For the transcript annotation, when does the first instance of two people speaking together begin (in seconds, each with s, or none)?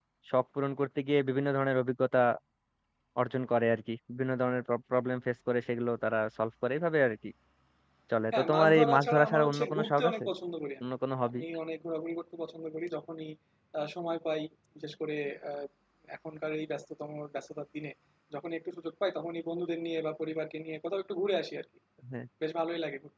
8.3 s